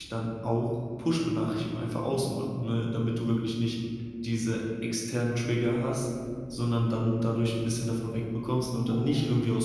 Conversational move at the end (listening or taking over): listening